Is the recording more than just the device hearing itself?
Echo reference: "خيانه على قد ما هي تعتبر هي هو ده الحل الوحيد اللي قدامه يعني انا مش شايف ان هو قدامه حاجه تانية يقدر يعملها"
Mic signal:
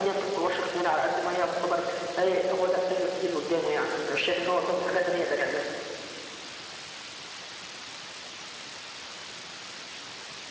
No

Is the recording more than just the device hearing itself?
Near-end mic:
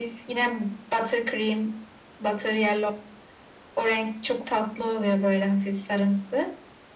No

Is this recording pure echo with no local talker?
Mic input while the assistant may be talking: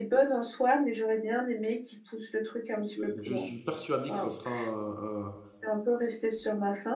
No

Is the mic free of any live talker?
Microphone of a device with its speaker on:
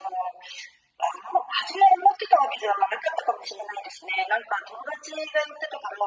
Yes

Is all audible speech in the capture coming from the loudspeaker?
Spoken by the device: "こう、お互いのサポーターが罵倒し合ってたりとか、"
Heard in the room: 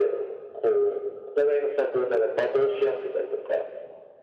Yes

